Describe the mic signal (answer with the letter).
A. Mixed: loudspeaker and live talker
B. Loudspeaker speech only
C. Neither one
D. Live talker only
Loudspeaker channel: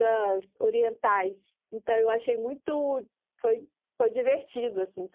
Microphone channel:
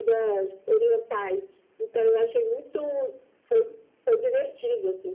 B